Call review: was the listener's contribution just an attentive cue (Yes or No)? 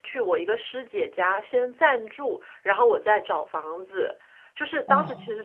Yes